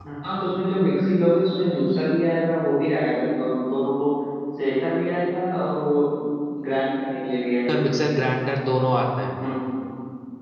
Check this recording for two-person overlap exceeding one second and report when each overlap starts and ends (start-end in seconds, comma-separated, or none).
none